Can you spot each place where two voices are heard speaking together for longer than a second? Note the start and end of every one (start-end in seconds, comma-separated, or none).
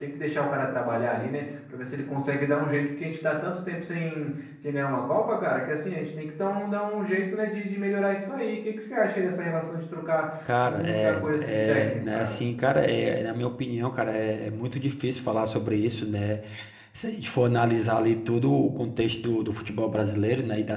10.6-12.4